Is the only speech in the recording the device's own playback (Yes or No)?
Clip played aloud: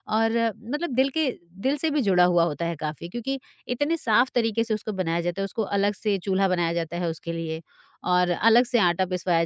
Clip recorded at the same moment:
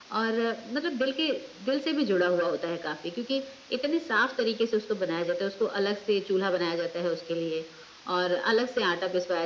Yes